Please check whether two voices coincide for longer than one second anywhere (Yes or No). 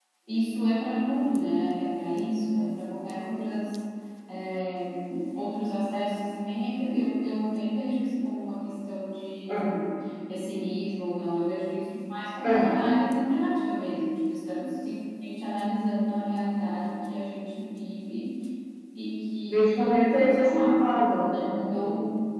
Yes